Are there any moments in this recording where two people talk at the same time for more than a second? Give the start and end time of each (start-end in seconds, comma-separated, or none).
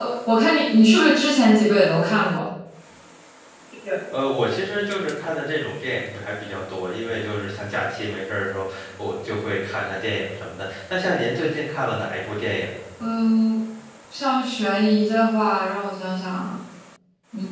none